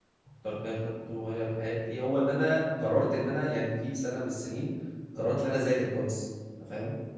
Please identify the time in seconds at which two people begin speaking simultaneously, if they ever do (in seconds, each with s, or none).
none